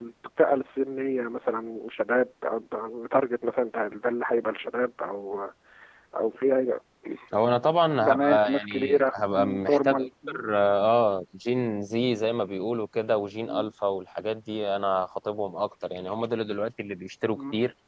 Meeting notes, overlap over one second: present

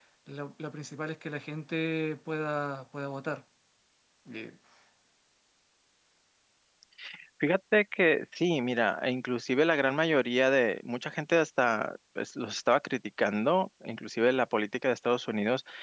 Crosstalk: none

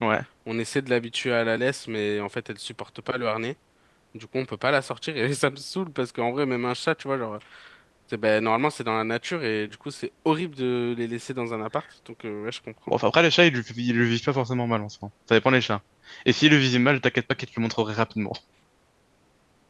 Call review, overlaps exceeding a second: none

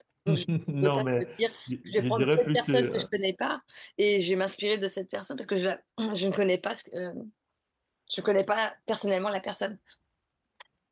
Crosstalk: present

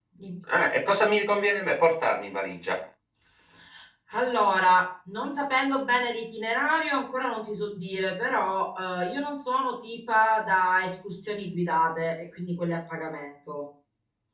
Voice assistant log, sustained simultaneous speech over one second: none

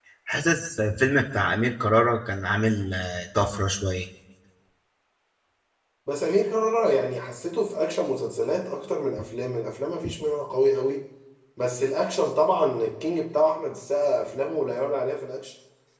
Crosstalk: none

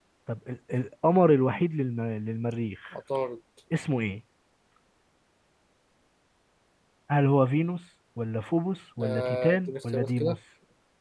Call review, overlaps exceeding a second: present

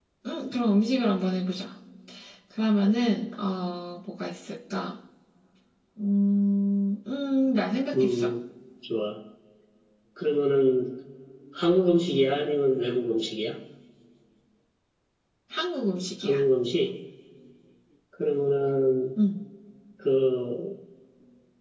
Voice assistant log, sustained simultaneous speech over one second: none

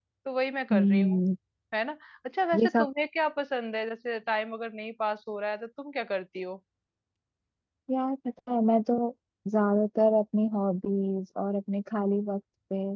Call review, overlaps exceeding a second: none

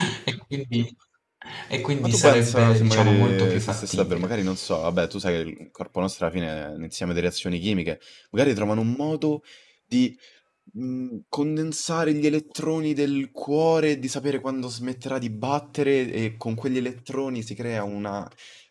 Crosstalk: present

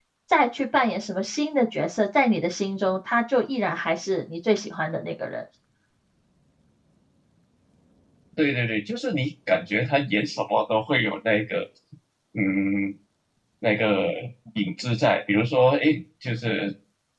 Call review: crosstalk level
none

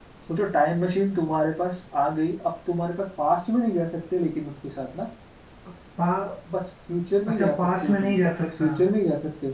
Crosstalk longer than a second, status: present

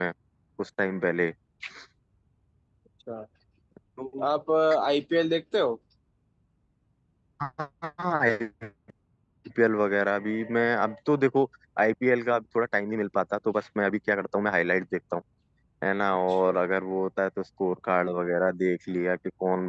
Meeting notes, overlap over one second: none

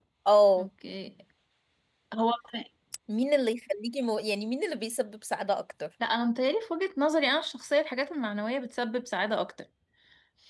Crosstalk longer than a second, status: none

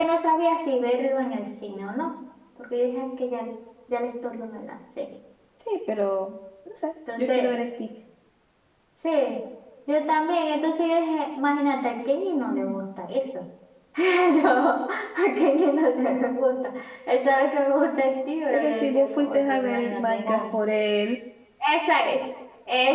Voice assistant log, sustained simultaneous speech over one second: present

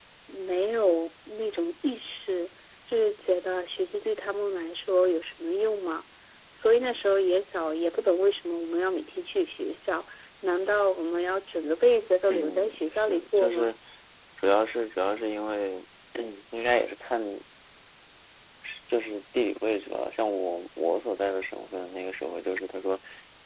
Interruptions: present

